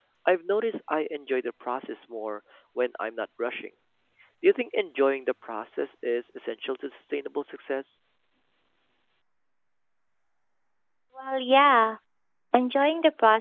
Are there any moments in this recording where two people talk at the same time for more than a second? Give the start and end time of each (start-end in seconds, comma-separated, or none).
none